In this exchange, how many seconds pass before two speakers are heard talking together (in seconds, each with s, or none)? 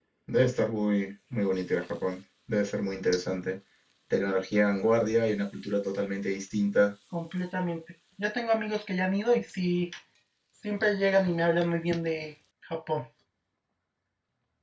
none